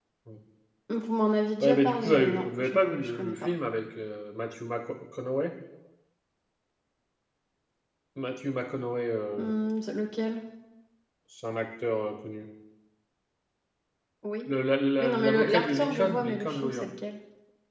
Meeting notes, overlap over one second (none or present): present